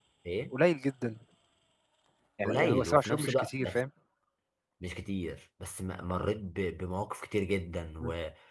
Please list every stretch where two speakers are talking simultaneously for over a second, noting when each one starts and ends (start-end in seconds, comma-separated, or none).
2.4-3.8